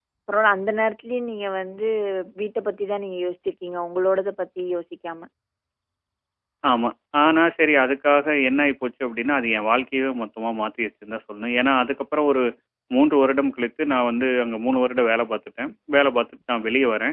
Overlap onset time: none

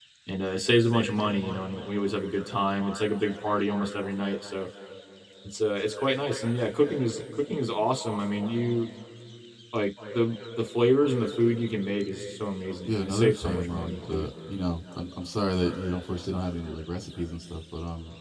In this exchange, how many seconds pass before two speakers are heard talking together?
12.8 s

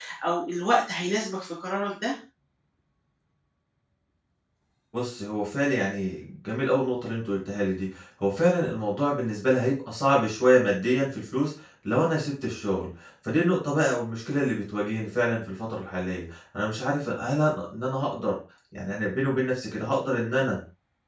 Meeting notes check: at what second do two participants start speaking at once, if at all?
none

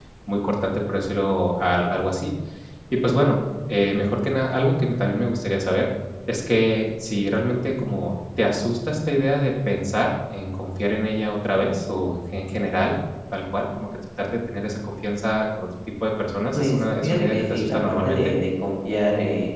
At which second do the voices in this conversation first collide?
16.5 s

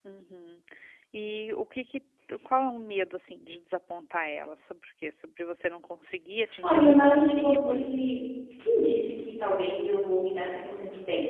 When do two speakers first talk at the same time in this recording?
6.6 s

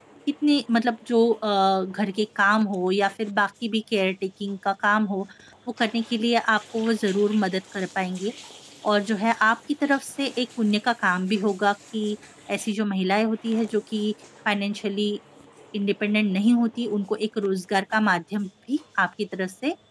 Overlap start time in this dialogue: none

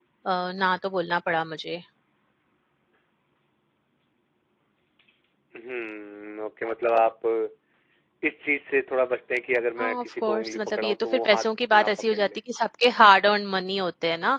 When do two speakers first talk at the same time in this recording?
9.8 s

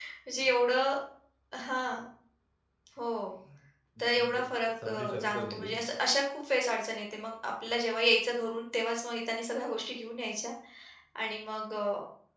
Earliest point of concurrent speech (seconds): 4.0 s

